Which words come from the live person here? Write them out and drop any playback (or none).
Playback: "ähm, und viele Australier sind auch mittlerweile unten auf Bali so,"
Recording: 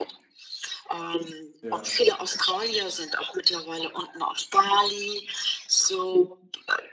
Ja.